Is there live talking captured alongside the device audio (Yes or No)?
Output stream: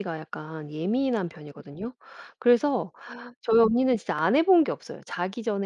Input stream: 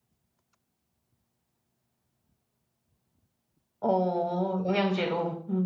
Yes